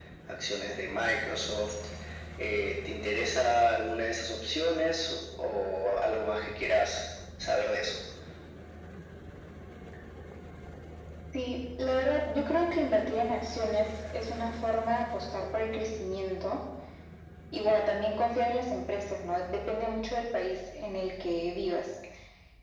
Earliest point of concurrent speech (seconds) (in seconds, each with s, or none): none